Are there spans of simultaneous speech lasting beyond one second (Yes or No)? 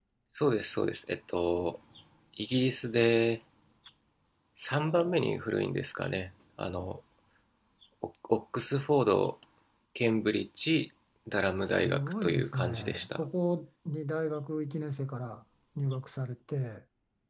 Yes